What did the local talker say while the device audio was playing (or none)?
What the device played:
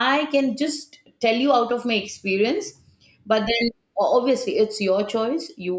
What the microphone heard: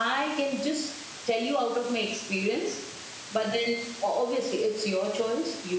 none